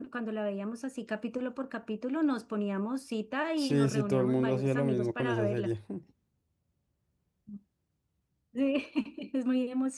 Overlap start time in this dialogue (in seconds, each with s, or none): 3.6 s